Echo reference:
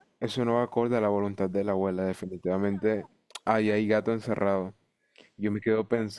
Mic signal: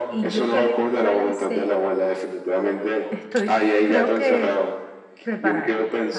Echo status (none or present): present